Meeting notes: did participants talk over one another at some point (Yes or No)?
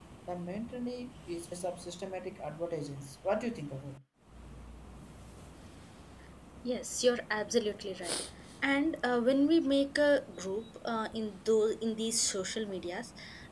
No